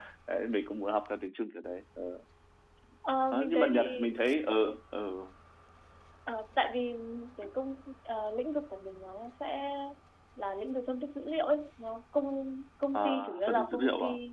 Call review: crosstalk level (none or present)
present